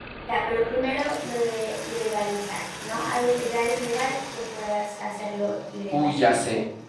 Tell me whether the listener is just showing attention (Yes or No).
No